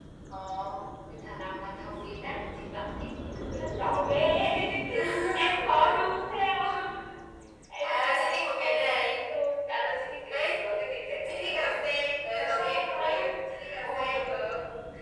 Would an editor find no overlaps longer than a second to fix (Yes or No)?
No